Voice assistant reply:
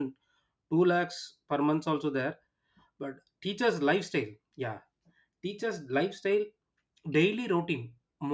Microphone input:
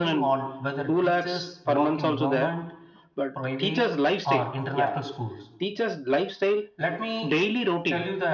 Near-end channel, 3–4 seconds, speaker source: both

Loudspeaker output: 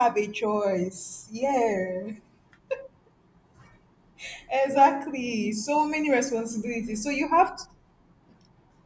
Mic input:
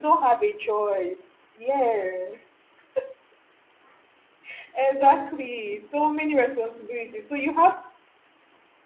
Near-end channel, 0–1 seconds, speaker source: echo only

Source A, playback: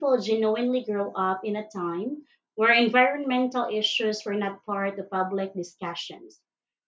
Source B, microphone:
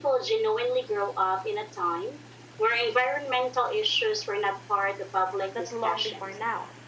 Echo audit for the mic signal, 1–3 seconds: echo only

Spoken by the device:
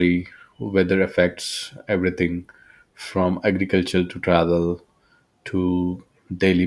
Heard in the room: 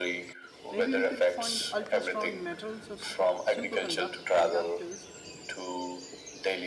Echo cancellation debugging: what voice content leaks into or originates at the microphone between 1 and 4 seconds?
both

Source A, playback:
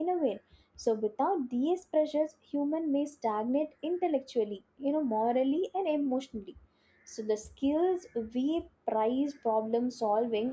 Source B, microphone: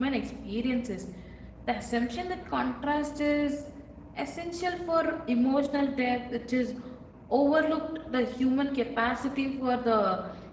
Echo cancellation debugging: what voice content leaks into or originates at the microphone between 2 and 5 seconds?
user only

